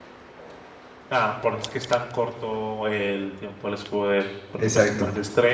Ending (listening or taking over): listening